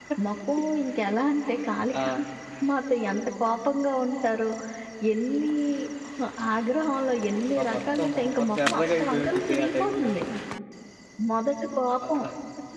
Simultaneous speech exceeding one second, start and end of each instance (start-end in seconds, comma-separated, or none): 7.6-10.1